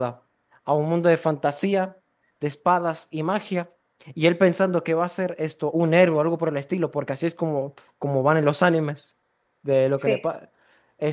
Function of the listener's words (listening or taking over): listening